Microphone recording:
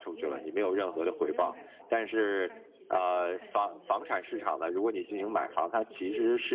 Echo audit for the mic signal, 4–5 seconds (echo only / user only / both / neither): both